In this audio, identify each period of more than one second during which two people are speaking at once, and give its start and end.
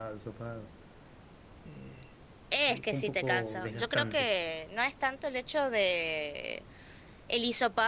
2.7-4.3

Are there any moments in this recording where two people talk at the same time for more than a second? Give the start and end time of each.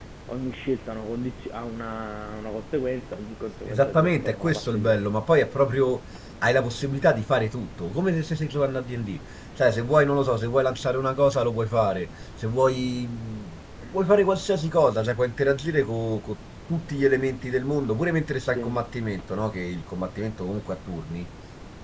3.7-5.0

